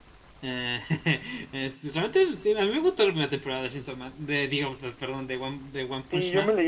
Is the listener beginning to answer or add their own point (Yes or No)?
Yes